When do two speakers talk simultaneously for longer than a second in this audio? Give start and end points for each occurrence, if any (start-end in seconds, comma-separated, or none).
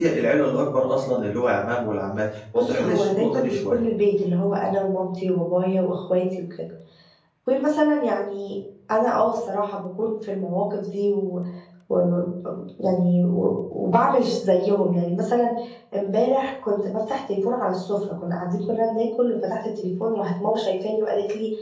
2.6-3.8